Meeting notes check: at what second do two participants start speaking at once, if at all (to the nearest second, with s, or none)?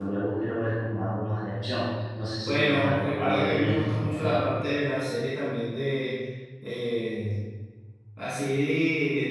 2 s